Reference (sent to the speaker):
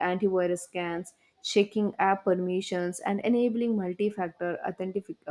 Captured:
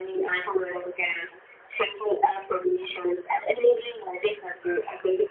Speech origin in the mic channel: echo only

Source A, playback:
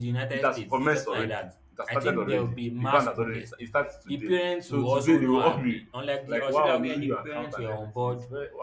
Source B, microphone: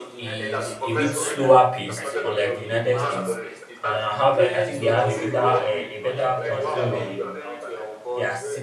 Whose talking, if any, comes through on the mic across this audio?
both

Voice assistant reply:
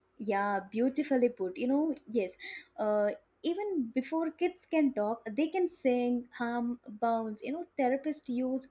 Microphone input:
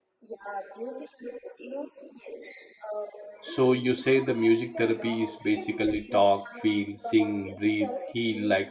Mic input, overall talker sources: both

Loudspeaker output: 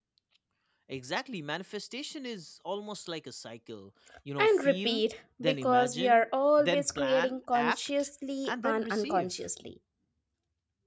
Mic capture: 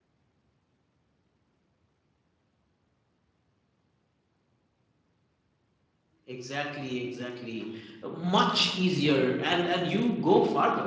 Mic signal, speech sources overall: user only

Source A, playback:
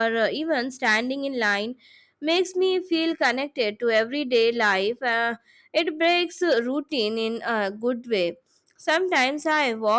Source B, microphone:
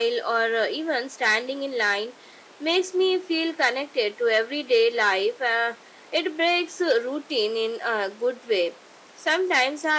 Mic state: echo only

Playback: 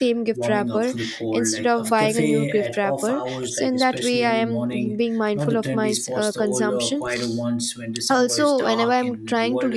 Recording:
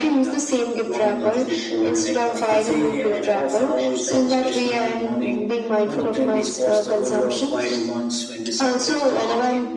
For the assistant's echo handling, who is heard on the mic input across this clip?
echo only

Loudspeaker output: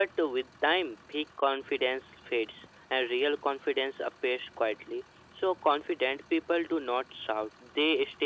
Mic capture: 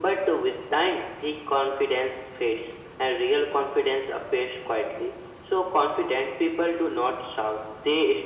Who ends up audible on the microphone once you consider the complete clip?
echo only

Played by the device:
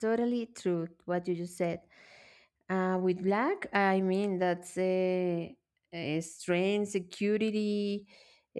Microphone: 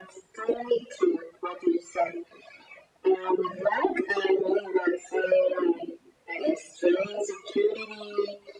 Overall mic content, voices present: echo only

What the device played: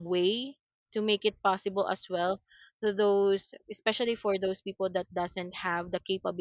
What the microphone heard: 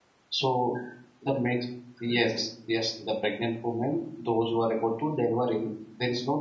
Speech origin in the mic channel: user only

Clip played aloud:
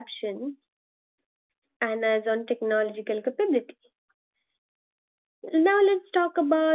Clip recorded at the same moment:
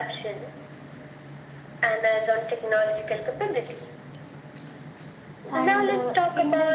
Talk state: both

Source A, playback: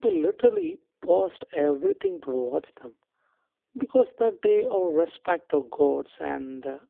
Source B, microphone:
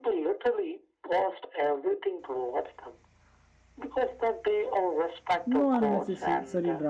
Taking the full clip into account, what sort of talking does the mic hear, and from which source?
both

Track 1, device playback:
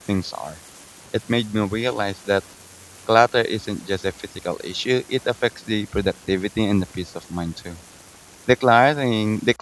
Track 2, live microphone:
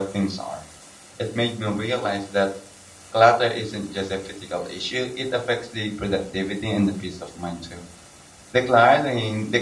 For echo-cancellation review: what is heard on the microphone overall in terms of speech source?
echo only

